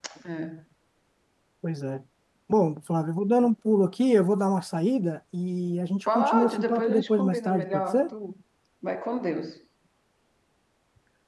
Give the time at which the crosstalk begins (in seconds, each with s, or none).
6.1 s